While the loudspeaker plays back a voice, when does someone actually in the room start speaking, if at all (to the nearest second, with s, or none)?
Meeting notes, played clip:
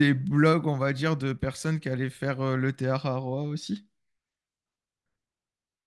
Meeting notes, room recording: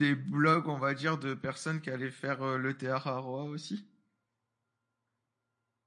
none